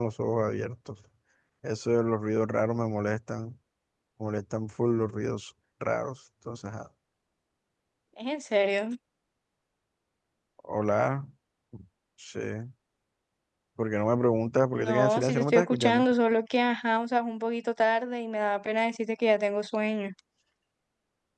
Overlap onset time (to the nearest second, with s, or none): 15 s